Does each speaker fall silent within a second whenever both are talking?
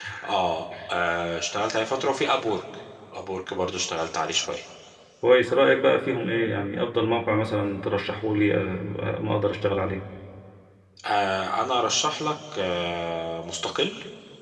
Yes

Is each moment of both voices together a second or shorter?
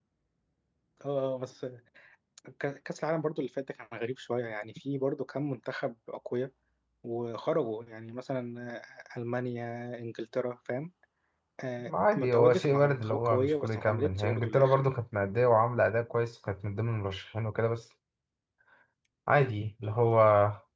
No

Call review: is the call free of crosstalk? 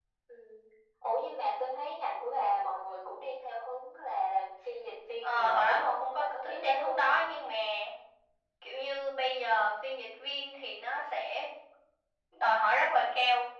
No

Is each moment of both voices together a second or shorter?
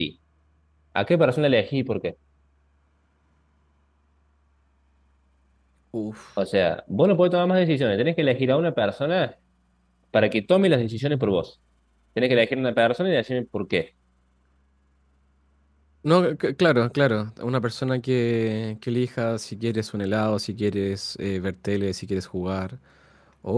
Yes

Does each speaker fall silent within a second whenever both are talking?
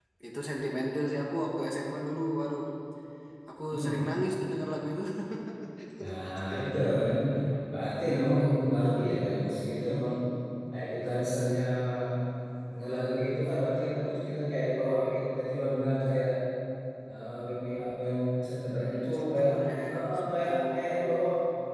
No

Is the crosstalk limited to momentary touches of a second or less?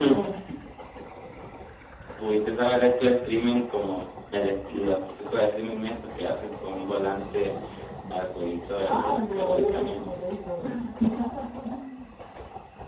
No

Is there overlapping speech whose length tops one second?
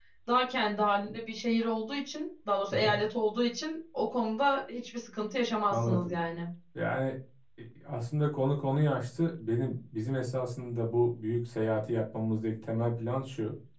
No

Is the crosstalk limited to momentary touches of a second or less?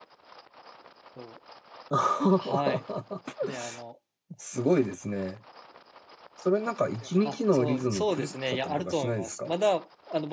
No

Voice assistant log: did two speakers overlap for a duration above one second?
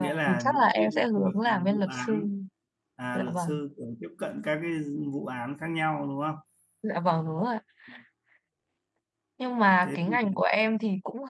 Yes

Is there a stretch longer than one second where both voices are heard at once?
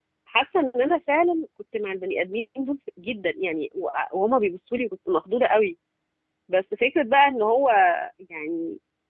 No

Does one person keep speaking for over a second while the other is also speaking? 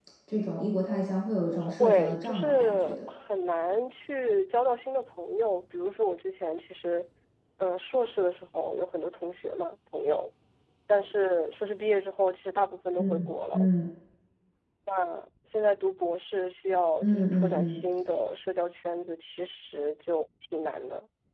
Yes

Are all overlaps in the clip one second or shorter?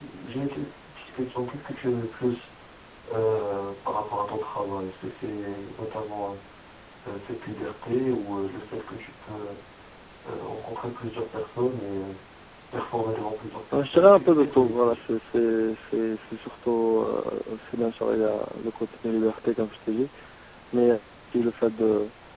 No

